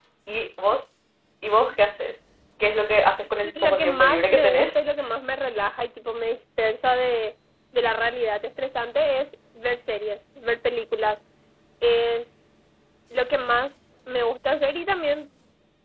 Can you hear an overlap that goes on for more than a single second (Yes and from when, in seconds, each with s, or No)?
Yes, from 3.4 s